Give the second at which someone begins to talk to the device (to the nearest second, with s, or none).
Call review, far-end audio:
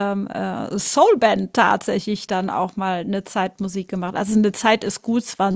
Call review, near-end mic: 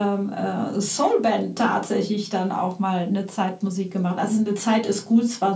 none